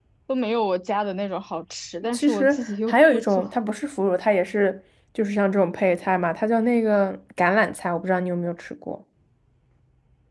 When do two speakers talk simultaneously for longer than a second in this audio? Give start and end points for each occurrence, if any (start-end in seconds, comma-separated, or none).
2.1-3.5